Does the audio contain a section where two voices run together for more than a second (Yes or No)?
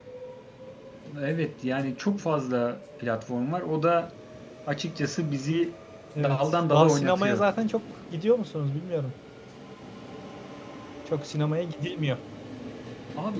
Yes